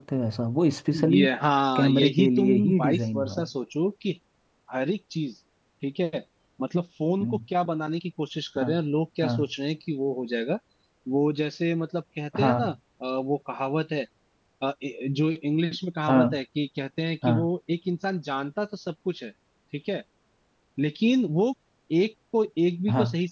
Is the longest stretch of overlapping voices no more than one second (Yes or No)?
No